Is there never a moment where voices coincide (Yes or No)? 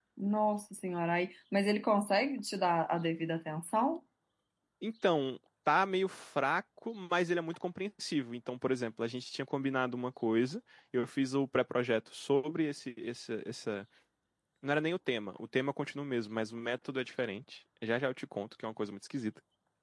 Yes